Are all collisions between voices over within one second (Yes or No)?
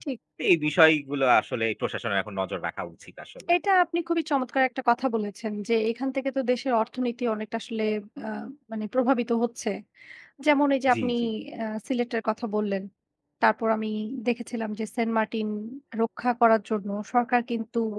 Yes